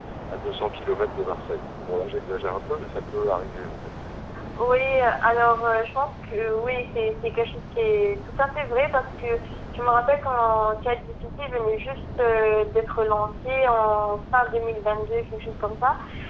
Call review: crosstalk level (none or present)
none